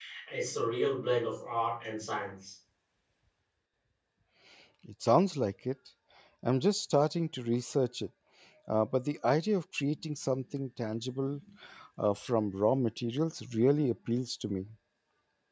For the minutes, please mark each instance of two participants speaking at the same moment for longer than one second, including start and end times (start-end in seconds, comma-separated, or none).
none